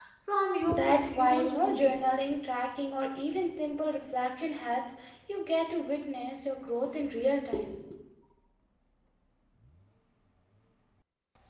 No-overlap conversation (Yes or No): No